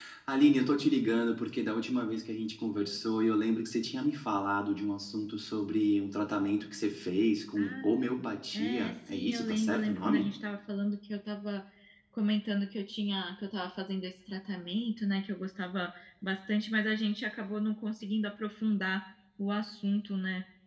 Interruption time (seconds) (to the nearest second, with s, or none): 8 s